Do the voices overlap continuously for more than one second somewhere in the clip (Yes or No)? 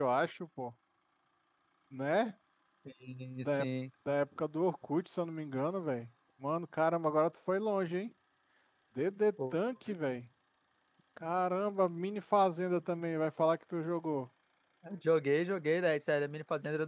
No